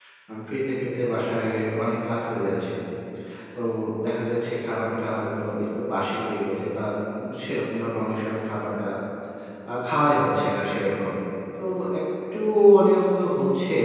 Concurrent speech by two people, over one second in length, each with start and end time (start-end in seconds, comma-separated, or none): none